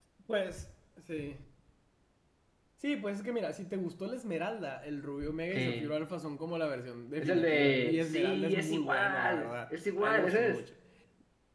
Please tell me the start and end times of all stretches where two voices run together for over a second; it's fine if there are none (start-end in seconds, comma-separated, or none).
7.2-10.6